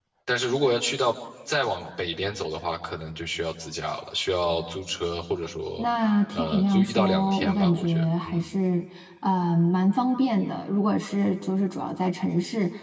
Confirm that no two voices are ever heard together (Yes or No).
No